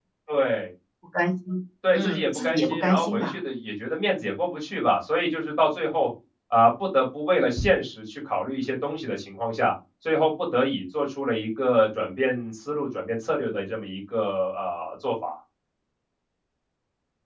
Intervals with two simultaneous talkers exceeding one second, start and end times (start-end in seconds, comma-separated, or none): 1.9-3.4